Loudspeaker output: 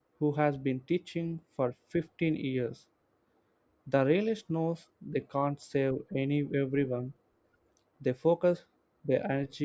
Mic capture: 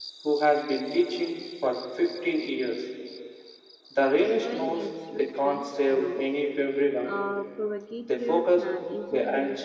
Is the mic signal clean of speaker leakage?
No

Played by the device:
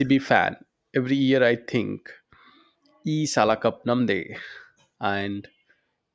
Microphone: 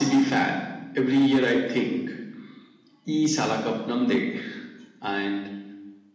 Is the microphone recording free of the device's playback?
No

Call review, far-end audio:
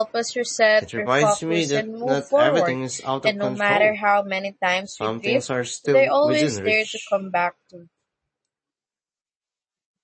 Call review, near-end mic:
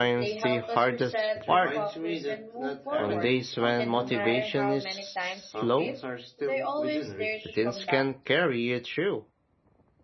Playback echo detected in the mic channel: Yes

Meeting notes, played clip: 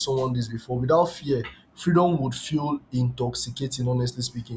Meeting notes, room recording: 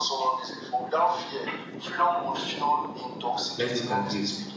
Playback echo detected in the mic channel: Yes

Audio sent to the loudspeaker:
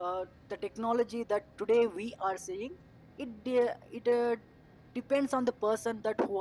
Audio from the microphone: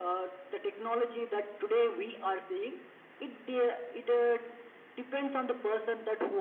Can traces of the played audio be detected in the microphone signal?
Yes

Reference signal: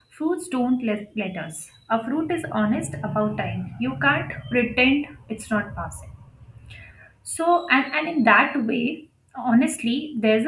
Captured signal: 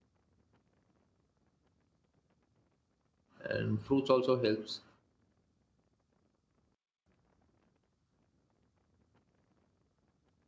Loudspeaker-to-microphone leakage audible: No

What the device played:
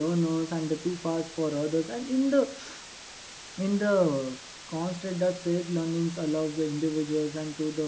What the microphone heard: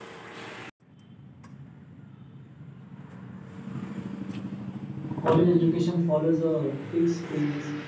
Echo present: No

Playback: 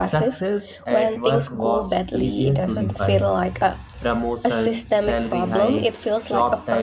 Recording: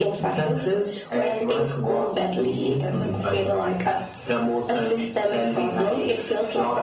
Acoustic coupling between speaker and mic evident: Yes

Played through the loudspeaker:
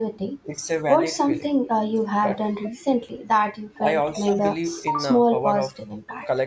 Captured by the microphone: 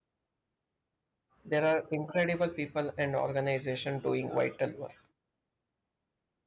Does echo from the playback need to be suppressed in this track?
No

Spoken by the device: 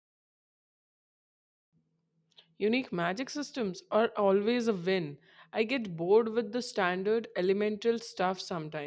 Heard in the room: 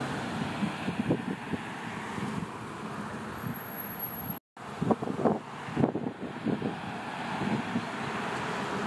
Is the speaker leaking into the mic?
No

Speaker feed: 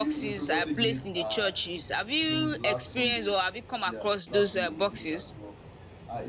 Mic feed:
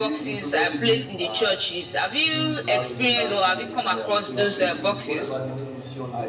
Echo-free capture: No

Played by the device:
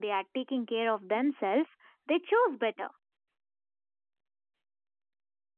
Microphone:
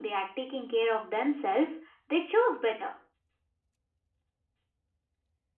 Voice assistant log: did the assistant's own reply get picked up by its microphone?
Yes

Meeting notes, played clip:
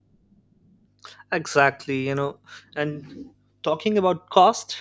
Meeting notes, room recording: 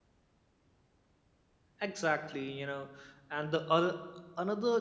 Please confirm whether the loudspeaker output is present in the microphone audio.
No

